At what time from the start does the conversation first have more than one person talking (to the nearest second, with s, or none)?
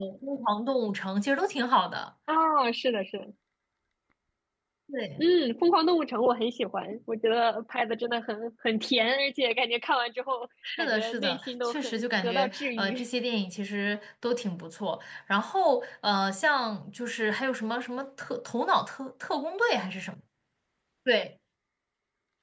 11 s